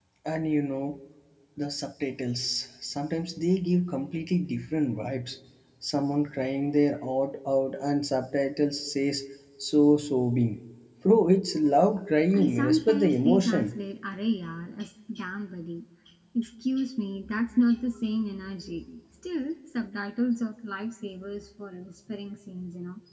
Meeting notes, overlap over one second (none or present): present